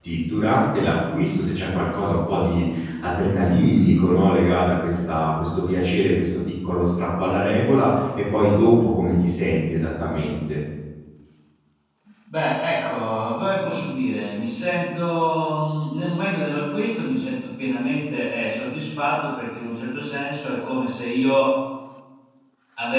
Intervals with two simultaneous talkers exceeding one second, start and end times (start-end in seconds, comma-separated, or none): none